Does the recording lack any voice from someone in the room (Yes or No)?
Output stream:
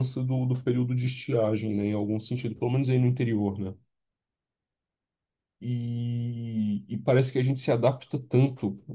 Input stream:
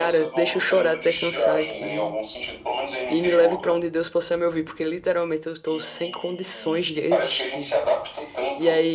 No